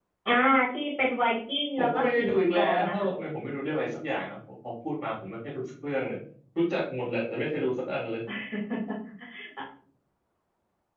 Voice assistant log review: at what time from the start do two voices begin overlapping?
1.8 s

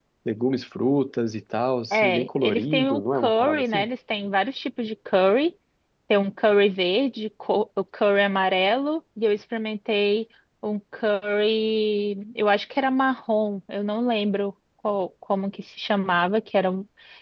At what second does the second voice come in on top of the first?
1.9 s

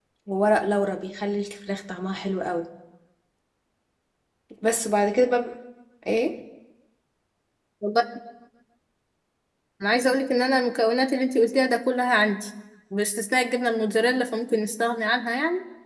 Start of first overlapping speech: none

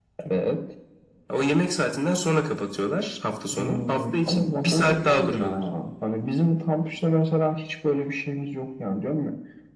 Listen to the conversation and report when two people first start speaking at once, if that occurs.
3.5 s

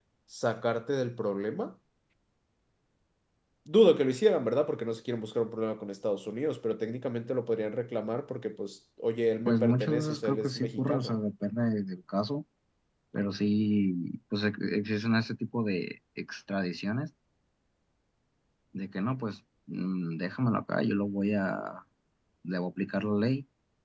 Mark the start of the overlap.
9.5 s

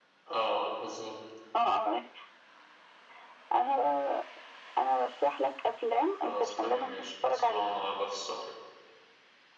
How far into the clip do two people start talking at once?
6.2 s

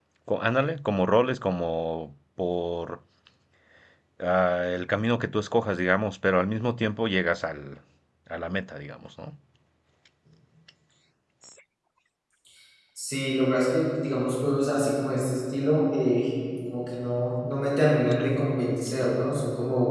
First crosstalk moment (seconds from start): none

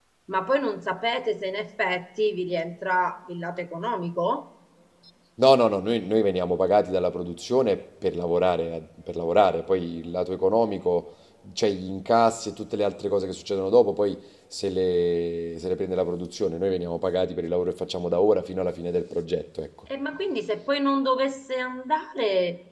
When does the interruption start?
none

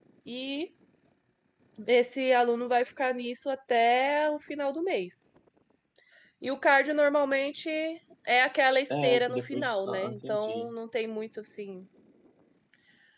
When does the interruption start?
8.9 s

